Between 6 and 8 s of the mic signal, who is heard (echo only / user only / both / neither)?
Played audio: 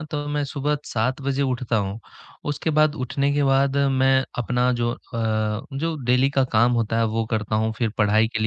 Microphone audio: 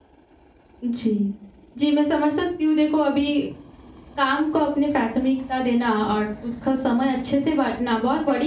user only